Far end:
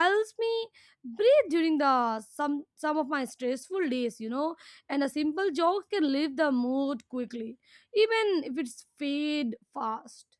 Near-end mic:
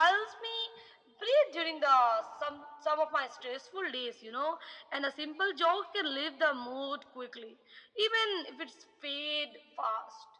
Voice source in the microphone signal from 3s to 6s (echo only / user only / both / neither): echo only